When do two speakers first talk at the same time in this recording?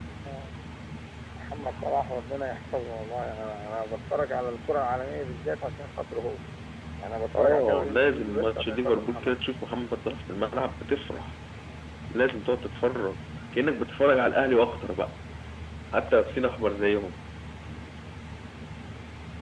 7.4 s

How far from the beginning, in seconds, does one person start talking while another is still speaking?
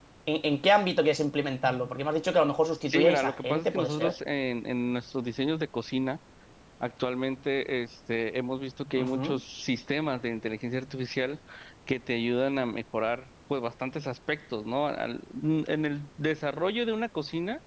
2.9 s

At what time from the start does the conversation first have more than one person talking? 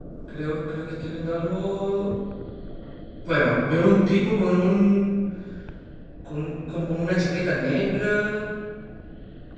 none

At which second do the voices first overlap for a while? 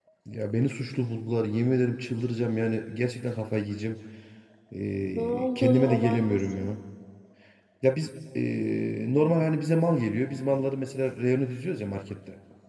5.1 s

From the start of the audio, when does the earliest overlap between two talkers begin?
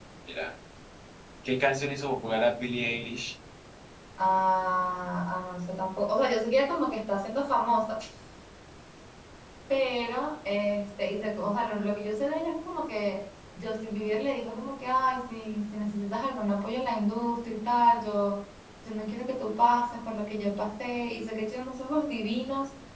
none

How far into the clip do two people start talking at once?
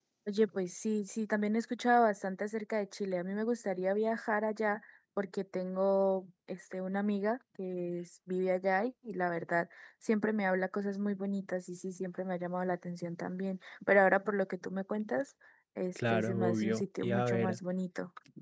16.1 s

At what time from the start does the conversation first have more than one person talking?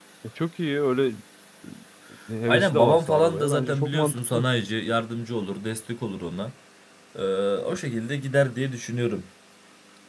2.5 s

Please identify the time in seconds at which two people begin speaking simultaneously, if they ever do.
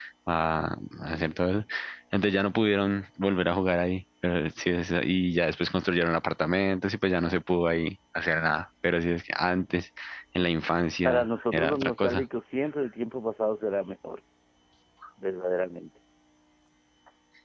11.0 s

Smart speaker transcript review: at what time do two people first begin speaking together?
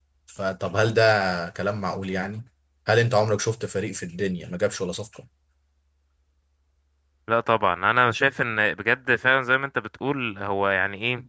none

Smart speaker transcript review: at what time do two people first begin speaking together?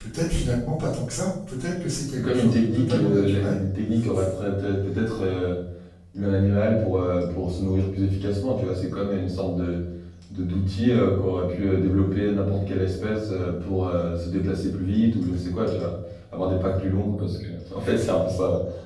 2.2 s

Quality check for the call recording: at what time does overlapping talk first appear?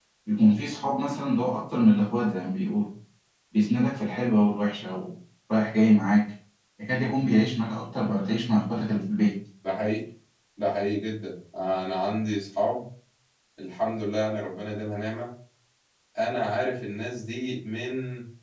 none

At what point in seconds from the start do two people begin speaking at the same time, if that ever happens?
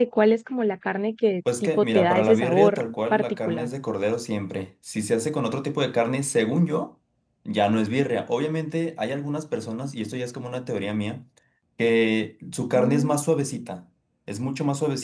1.6 s

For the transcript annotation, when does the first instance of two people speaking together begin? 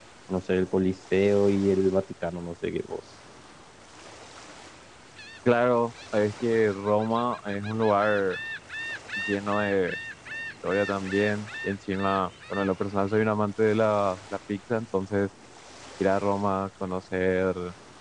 none

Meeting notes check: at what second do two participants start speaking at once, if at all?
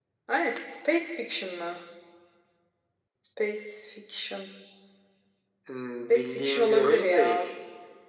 6.1 s

